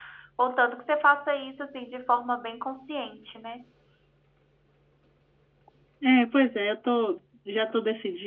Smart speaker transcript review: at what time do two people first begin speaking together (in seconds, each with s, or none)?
none